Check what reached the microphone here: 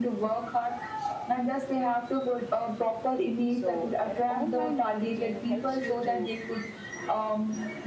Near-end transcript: so an online marketing helps you to

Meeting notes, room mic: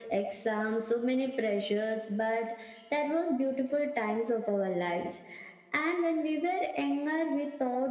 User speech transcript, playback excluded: none

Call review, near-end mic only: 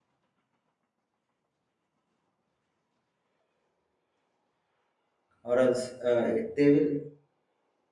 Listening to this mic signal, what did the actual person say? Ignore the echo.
or else uh, they will

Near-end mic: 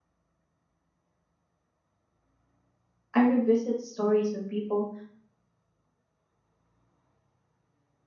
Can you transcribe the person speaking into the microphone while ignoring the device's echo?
I revisit stories of people

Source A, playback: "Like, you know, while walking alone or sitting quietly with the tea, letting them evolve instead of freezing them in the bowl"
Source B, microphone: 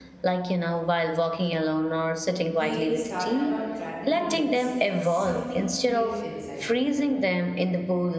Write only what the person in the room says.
They started on random days when something clicked inside me.

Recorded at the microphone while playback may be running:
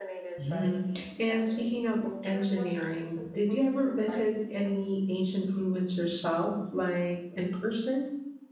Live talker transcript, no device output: Mhm. And speaking of engineering, did you ever visit any ancient ruins yourself, like in person?

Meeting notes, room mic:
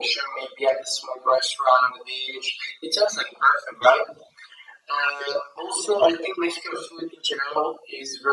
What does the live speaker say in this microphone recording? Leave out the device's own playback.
none

